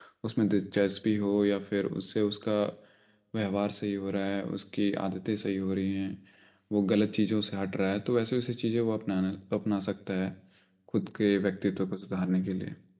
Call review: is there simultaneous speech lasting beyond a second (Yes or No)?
No